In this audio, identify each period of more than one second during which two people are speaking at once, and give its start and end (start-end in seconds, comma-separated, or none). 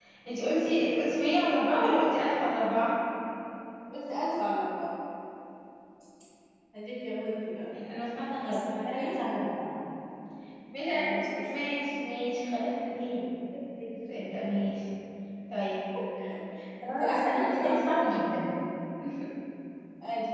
16.8-18.1